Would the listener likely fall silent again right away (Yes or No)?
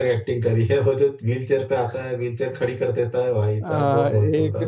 No